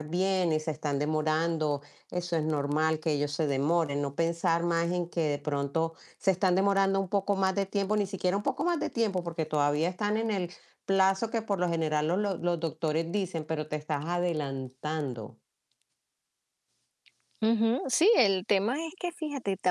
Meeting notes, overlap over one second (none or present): none